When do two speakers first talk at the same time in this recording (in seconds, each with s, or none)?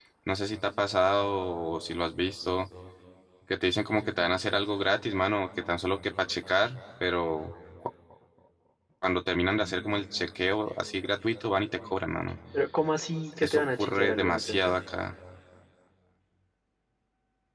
13.3 s